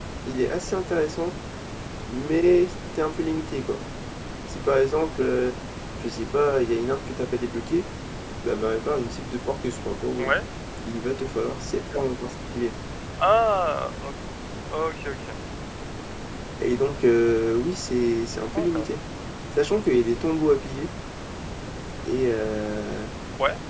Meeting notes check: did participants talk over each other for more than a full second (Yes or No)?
No